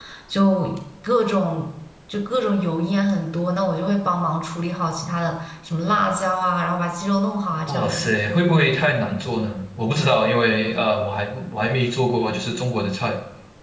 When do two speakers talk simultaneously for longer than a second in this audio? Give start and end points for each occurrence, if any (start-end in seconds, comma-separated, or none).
none